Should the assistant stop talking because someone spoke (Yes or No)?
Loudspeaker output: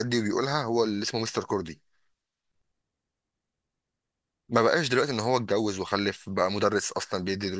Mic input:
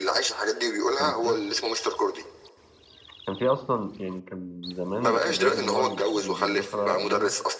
Yes